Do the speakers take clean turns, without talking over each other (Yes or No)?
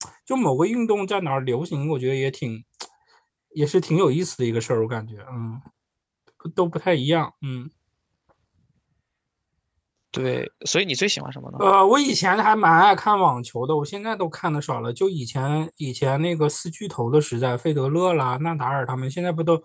Yes